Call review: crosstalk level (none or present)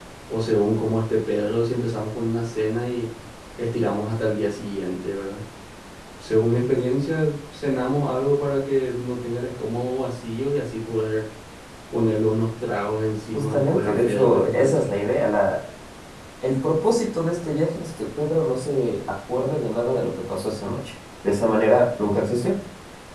present